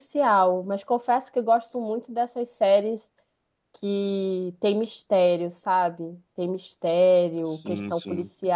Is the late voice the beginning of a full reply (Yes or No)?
No